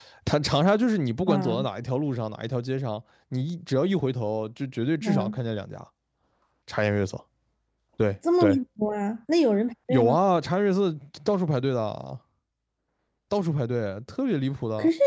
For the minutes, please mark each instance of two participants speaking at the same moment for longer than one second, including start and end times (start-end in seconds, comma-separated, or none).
none